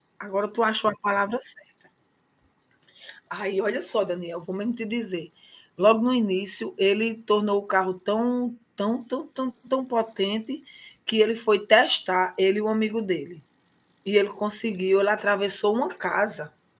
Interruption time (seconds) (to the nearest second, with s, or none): none